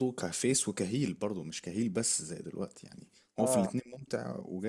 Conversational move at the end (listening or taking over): listening